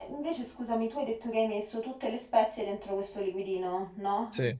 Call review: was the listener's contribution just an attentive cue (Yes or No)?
Yes